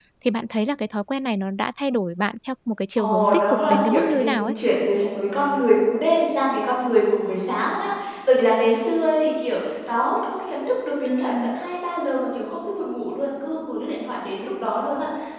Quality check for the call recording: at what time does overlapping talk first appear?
3.0 s

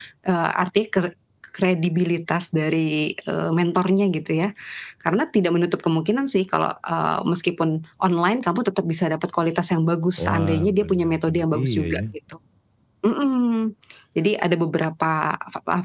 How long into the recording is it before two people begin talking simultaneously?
10.2 s

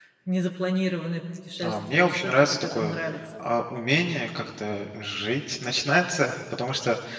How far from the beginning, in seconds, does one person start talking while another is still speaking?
1.6 s

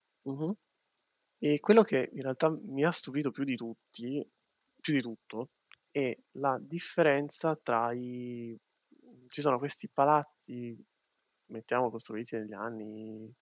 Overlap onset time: none

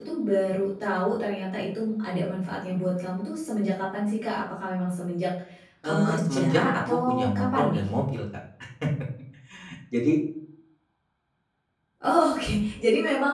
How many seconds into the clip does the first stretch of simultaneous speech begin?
5.8 s

